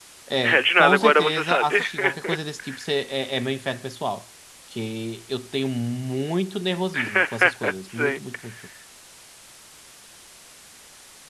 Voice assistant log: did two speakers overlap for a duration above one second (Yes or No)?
Yes